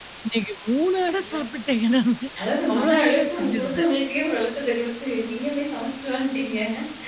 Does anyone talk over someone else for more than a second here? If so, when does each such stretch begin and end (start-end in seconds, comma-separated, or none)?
2.7-3.9